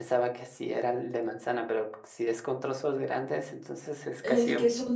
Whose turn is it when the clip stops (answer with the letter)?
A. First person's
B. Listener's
B